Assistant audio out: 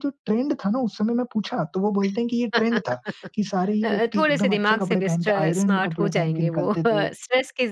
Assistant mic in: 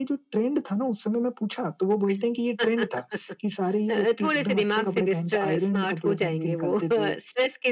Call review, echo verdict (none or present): present